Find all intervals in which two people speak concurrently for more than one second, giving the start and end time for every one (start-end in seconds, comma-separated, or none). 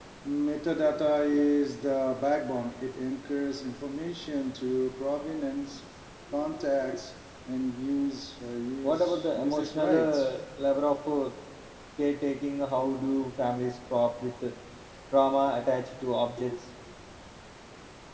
8.8-10.3